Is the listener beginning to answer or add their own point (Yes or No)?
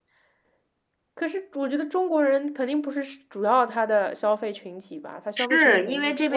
Yes